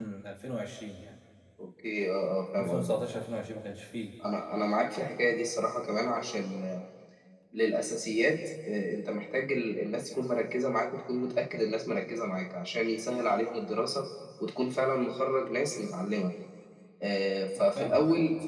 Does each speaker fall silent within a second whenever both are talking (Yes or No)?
Yes